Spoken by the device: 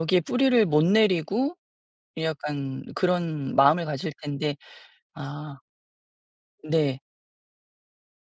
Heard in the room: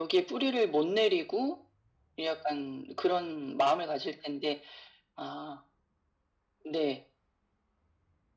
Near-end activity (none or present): none